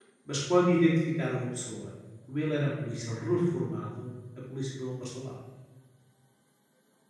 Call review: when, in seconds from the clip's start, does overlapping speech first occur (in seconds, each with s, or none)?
none